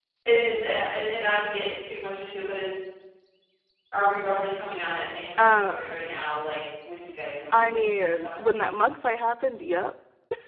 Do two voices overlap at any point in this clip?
Yes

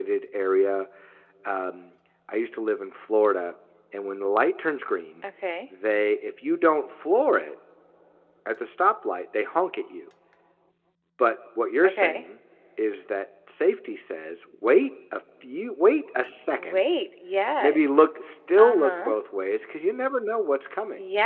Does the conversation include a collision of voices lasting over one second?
No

